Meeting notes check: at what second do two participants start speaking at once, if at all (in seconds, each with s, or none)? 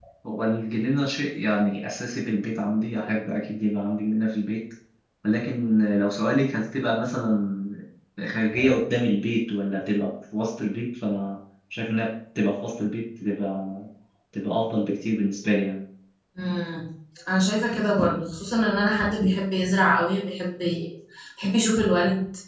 none